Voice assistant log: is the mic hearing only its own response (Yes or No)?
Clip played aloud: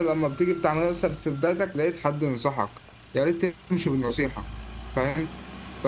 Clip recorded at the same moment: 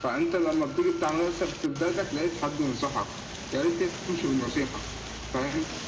Yes